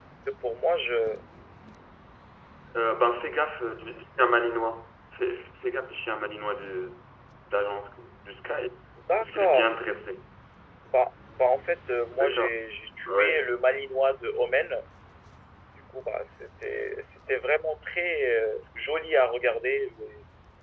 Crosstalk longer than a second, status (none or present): none